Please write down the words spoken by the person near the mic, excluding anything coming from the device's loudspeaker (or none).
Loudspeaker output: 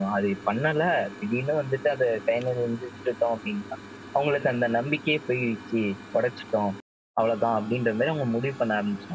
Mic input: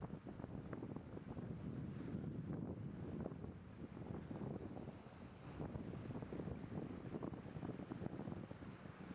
none